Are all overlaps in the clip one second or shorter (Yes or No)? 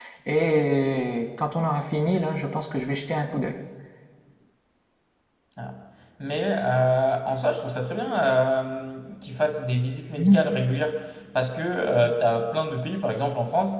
Yes